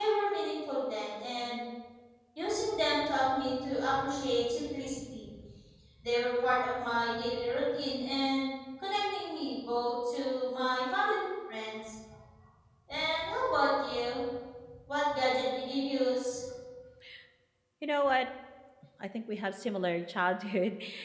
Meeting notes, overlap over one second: none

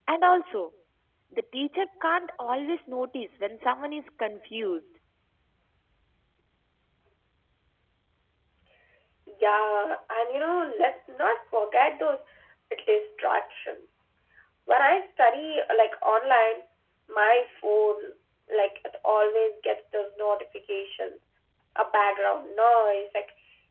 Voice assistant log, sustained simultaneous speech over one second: none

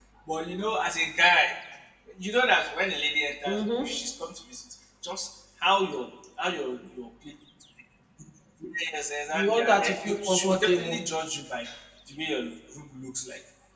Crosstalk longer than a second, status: present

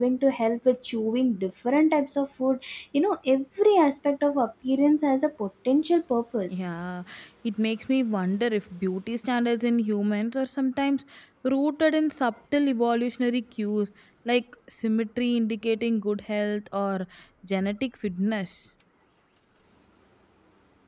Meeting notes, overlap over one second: none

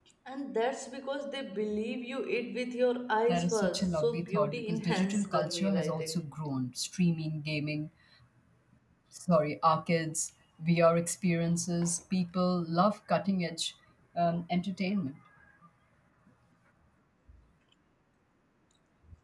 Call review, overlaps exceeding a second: present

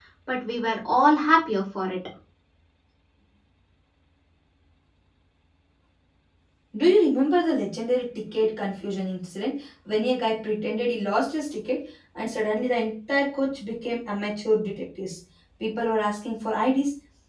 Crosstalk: none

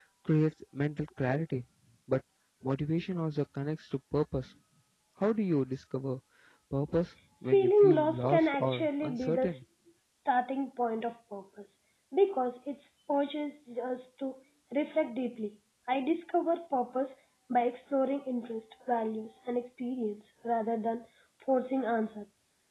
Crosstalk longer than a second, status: present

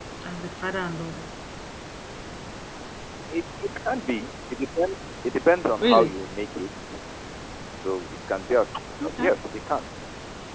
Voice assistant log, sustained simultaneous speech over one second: none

